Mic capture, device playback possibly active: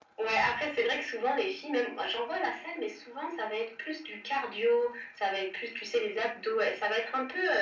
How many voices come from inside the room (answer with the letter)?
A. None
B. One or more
A